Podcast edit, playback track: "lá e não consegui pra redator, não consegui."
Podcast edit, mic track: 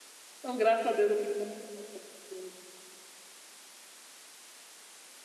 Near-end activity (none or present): present